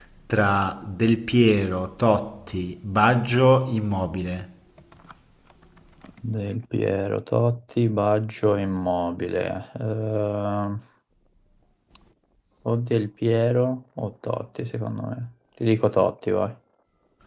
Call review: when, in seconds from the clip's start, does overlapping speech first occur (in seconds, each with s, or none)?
none